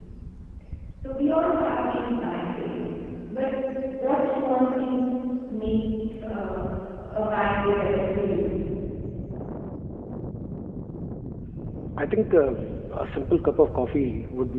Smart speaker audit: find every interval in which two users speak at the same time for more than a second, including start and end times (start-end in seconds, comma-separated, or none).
none